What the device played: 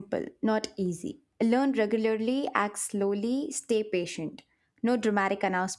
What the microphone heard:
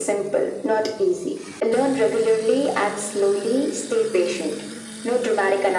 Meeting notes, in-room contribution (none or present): none